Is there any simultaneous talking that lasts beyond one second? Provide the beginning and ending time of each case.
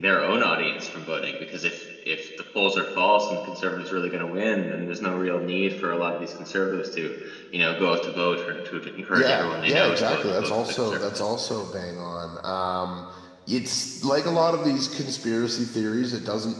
9.1-11.2

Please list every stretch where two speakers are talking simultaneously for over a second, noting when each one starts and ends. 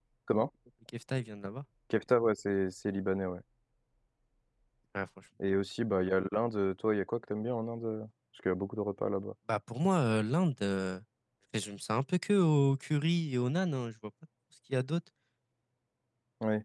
none

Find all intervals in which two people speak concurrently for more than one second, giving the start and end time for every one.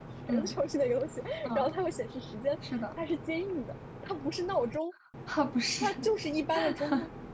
none

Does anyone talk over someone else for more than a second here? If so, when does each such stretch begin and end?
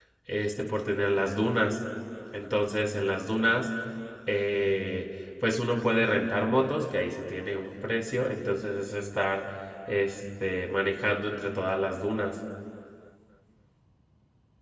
none

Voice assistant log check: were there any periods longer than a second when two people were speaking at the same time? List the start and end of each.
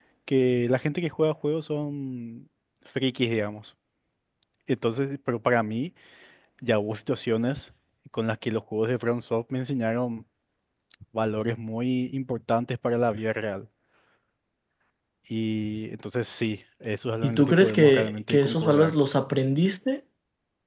17.2-18.9

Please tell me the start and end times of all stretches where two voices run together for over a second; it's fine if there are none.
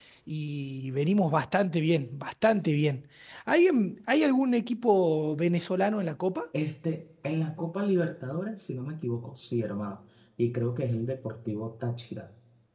none

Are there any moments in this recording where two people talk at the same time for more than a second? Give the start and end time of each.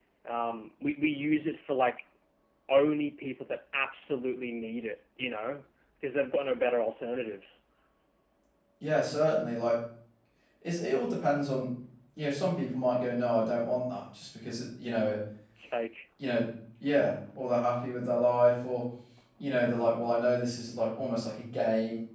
none

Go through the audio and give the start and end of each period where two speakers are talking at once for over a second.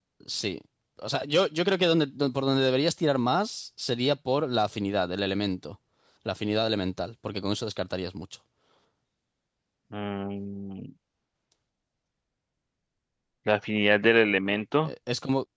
none

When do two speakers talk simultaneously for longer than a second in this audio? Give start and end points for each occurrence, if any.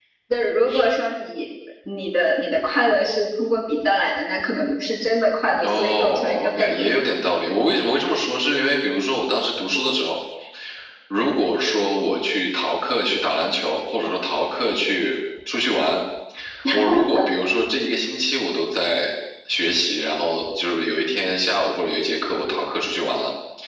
5.6-6.8

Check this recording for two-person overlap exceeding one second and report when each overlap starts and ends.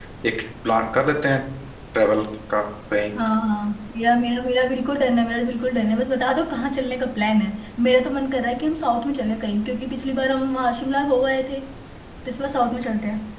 none

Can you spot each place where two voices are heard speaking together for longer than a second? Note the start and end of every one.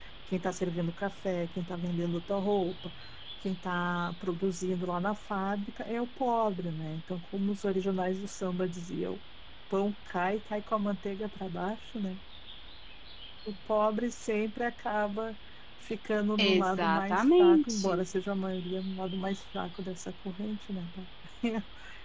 16.4-18.0

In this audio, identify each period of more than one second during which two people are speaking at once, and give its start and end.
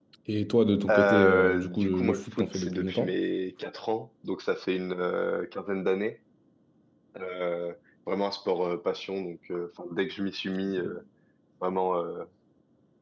0.9-3.2

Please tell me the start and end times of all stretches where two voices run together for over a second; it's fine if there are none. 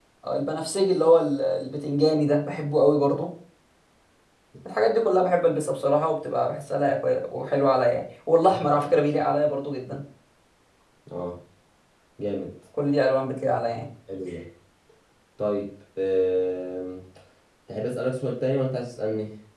none

